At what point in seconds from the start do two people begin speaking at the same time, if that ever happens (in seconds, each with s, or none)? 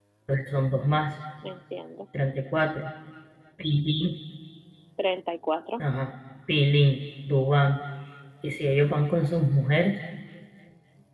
none